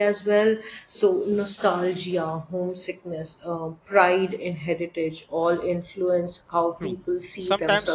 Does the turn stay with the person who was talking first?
No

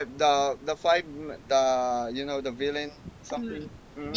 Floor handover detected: Yes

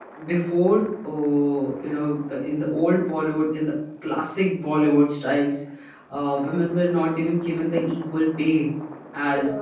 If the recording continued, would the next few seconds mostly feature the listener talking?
Yes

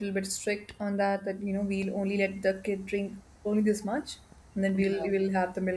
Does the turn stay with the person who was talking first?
Yes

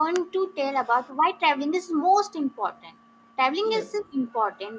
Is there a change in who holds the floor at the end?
No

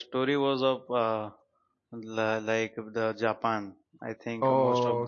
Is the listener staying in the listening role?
Yes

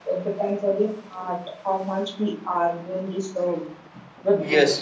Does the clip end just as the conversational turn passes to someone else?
Yes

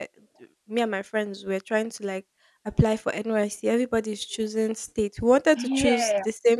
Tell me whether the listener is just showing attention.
Yes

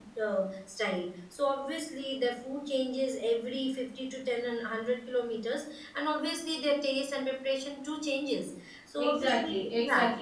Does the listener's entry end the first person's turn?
Yes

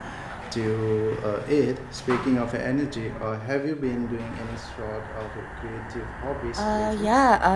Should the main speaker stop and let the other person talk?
Yes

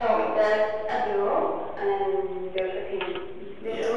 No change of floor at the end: Yes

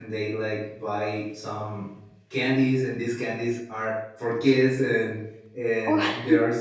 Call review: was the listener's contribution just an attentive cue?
Yes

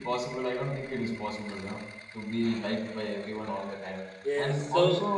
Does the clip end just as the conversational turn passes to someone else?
No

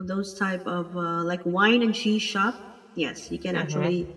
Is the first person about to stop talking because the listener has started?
No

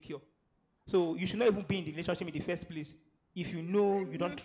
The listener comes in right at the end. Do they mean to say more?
Yes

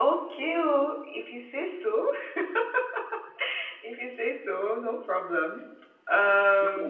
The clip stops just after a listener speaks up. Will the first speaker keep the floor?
No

